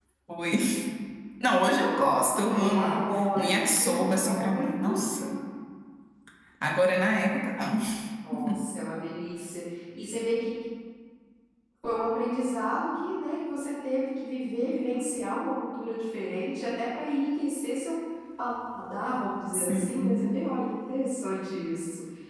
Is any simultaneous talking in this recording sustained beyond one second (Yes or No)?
Yes